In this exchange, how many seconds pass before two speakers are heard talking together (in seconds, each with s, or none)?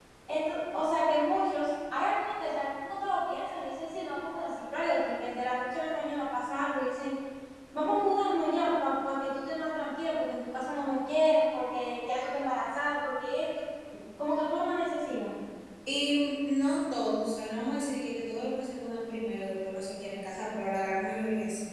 none